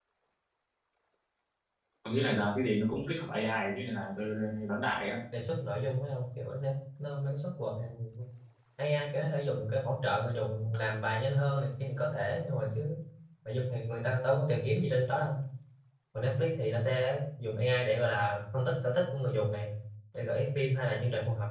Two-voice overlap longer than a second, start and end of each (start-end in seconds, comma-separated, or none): none